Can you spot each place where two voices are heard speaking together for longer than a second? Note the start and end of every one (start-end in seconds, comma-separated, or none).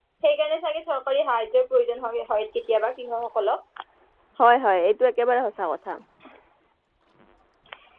none